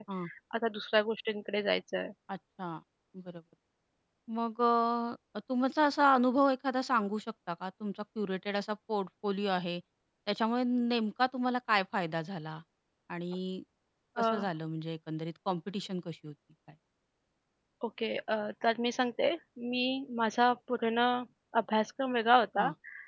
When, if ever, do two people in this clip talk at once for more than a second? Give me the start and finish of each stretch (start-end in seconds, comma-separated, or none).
none